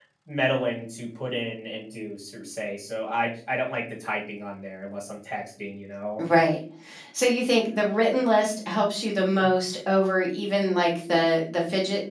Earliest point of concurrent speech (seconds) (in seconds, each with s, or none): none